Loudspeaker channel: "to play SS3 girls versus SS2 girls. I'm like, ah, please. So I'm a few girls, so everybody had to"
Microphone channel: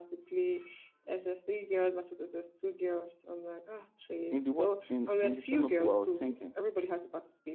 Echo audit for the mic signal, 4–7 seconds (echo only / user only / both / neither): both